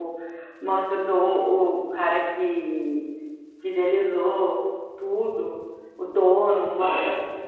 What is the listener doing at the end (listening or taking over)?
listening